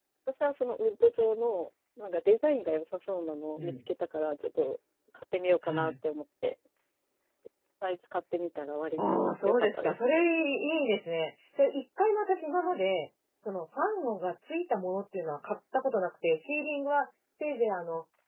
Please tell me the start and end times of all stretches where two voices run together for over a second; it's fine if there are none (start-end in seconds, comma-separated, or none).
9.0-10.3